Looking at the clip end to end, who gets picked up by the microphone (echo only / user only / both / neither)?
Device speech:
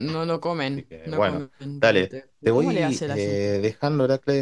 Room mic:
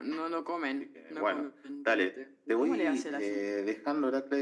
echo only